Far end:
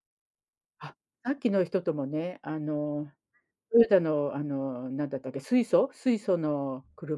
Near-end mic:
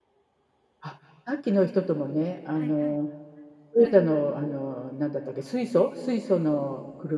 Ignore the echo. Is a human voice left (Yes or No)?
Yes